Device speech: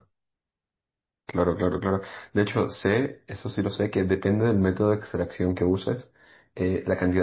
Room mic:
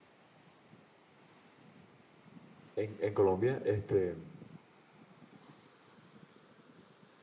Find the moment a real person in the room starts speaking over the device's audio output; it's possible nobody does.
3 s

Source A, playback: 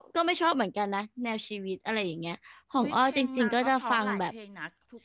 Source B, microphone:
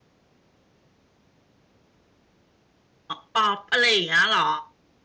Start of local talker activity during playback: 3 s

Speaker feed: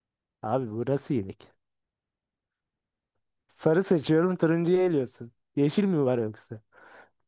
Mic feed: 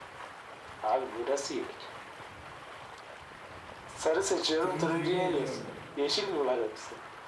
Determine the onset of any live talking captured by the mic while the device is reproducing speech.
5 s

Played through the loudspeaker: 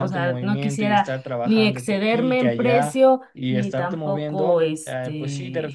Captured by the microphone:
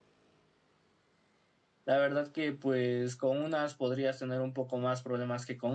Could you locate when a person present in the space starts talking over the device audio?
2 s

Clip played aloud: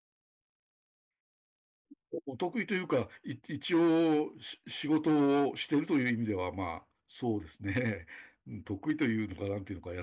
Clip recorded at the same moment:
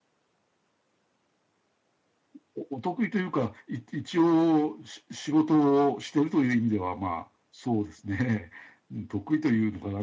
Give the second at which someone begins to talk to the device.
none

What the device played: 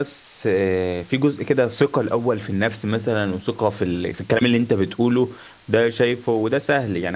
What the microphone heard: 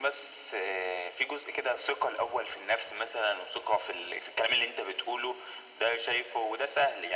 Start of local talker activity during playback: none

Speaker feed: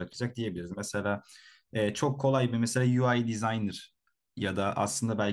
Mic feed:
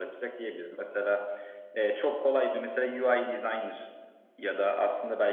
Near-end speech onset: none

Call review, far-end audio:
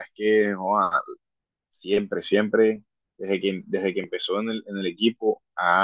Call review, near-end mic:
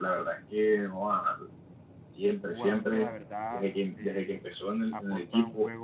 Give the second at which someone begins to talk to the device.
2 s

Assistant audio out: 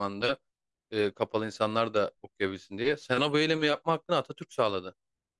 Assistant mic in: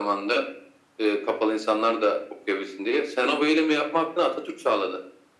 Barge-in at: none

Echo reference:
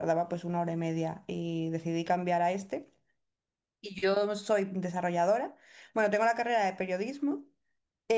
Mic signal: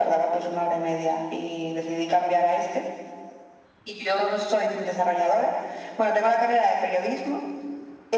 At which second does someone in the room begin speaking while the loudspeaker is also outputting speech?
none

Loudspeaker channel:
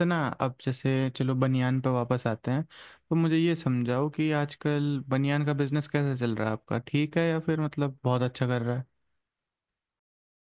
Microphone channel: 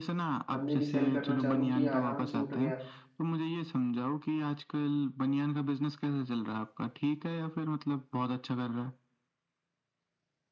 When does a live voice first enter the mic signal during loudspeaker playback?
1 s

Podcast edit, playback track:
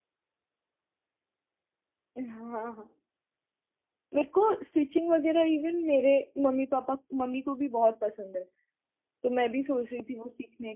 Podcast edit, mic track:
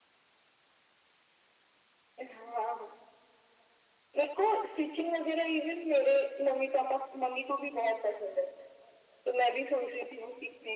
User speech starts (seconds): none

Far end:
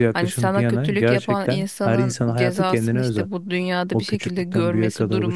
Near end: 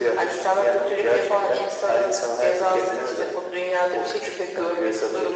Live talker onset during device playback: none

